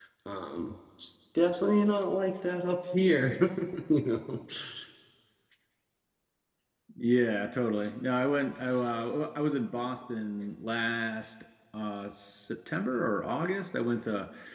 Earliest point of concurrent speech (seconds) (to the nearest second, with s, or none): none